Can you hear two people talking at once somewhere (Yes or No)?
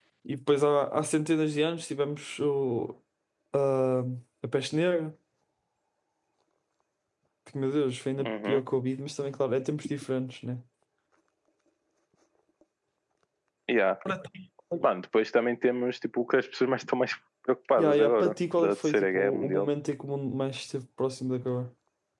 Yes